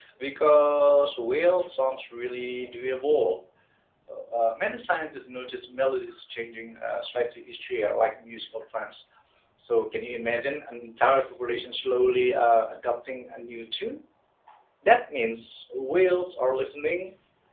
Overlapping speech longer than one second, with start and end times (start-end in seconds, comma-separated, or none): none